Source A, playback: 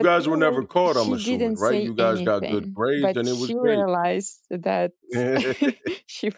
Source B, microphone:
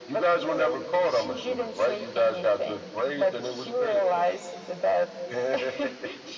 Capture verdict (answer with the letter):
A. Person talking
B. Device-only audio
B